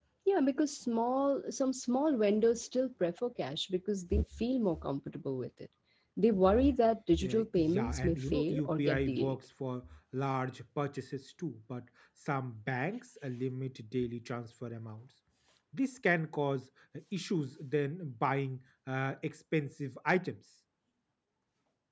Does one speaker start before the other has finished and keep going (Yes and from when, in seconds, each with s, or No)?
Yes, from 7.2 s